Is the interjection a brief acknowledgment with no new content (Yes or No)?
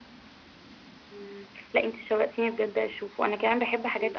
Yes